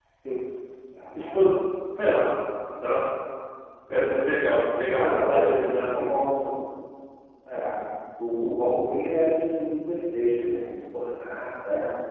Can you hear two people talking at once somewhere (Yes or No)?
Yes